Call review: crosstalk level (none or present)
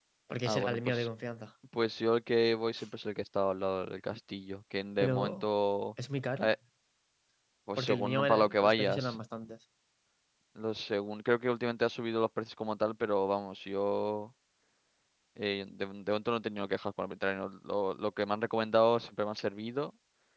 present